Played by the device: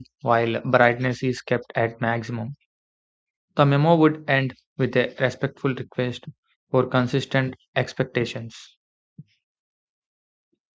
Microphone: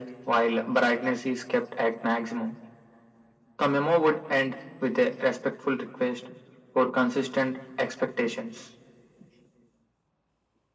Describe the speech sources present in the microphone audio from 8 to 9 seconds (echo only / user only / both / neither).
echo only